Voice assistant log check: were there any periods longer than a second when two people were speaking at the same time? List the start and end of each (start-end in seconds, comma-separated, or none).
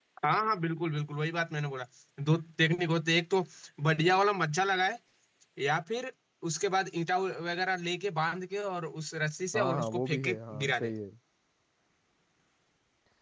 9.5-10.9